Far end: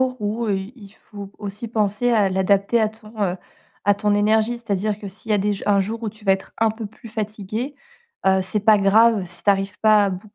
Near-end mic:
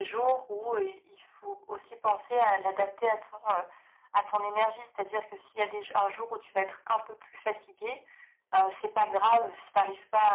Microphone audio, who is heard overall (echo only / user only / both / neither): echo only